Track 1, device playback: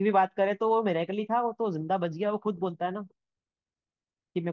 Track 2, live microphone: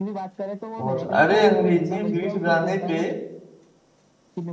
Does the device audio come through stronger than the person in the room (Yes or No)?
No